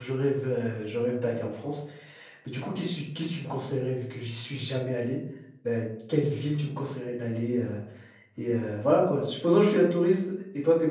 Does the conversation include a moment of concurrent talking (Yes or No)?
No